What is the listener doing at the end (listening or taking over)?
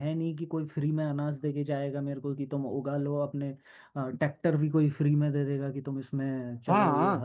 taking over